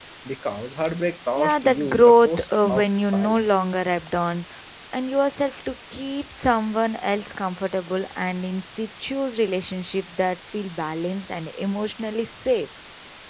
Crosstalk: present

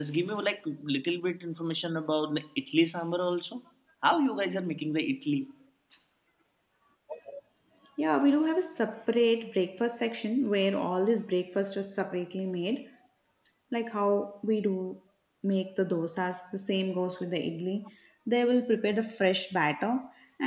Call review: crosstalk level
none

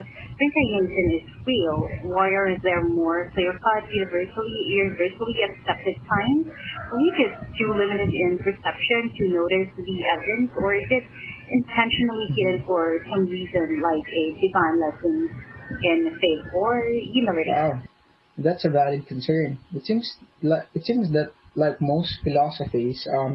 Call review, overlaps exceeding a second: none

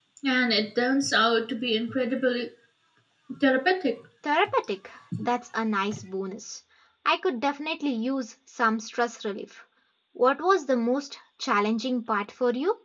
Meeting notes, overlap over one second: none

